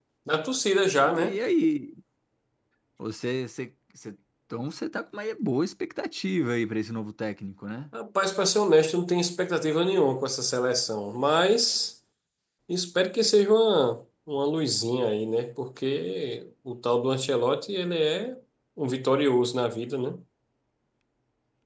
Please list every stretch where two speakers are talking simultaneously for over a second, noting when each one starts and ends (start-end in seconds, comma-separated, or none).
none